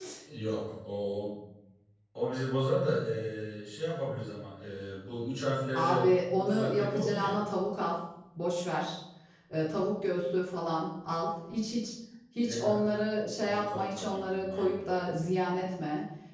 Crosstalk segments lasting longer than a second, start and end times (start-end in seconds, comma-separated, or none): 5.8-7.4, 13.4-14.8